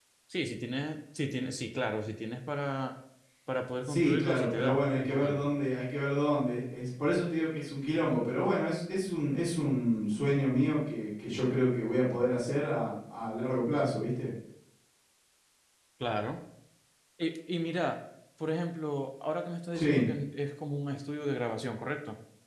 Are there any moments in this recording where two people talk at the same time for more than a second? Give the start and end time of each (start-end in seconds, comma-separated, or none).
3.8-5.5